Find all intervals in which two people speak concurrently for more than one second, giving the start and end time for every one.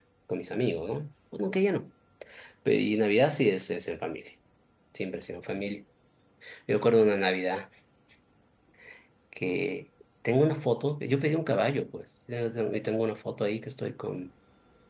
none

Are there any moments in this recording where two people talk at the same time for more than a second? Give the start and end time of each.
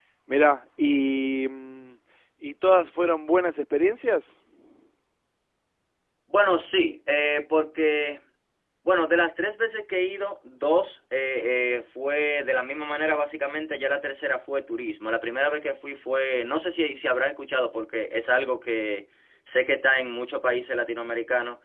none

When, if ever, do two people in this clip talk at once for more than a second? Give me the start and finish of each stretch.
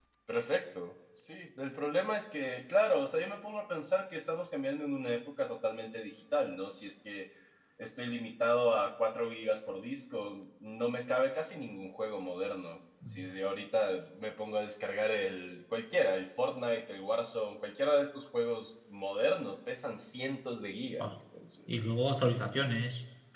none

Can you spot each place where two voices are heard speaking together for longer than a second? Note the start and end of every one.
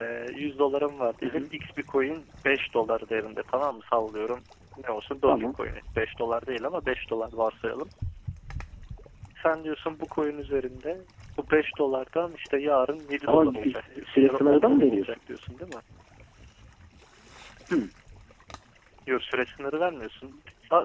13.3-15.2

